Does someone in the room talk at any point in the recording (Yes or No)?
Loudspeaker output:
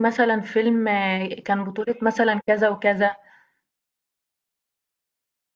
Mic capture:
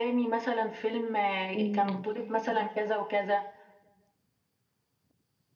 Yes